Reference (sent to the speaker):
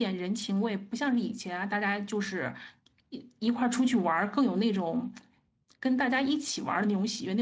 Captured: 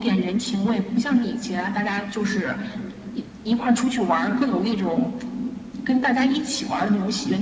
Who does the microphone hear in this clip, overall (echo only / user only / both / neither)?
echo only